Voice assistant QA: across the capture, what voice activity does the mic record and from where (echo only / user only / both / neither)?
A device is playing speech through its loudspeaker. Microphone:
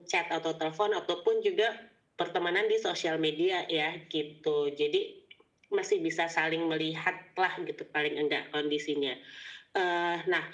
echo only